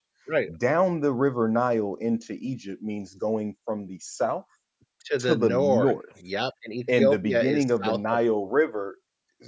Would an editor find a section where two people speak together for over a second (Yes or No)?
Yes